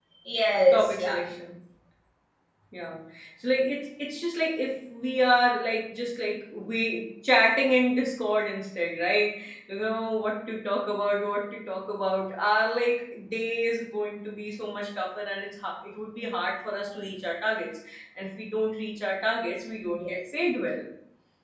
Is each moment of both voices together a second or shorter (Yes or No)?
Yes